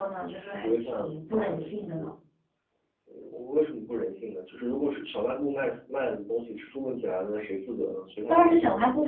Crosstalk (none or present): present